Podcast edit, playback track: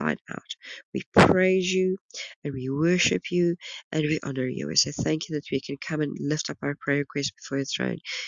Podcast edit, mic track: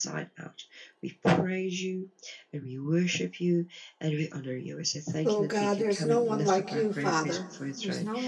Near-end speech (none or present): present